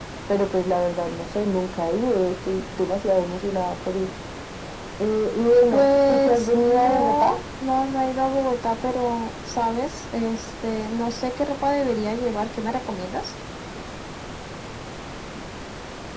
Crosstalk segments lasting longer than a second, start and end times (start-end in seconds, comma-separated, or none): 5.7-7.3